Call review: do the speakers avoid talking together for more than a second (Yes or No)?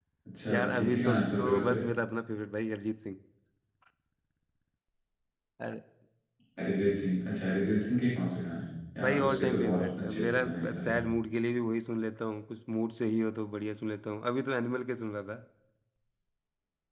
No